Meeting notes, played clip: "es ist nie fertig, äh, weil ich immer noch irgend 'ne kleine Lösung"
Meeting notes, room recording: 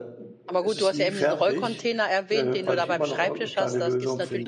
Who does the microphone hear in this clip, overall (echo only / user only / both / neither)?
both